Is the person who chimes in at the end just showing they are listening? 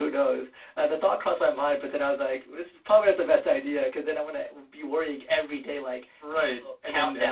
No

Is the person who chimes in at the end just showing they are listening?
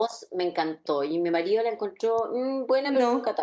Yes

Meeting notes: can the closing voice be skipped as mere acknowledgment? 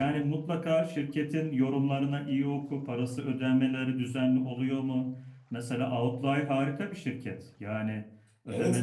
No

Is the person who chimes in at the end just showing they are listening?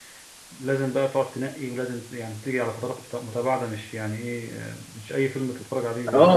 No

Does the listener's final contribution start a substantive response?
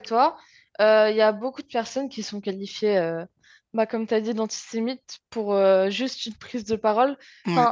No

